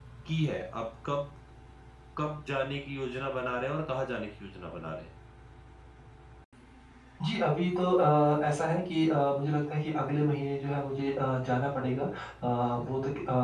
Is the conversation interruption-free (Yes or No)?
Yes